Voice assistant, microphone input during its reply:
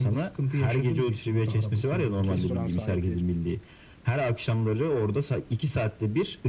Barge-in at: 2.3 s

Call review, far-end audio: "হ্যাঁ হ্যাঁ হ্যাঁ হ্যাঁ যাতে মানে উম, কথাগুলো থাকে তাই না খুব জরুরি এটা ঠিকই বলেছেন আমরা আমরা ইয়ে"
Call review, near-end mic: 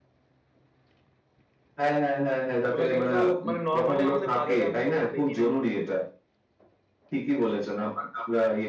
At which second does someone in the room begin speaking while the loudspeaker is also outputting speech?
2.6 s

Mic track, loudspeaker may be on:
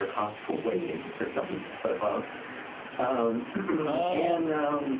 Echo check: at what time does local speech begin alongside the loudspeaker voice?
3.8 s

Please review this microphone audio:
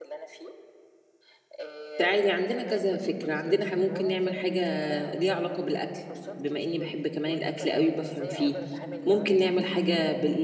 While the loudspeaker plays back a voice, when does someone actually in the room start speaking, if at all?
2.0 s

